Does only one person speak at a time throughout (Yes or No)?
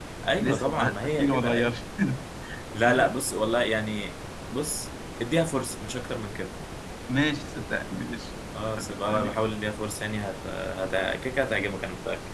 No